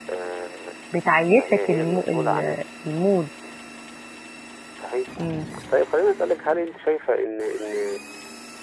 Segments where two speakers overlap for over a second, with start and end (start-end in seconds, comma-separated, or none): 1.4-2.6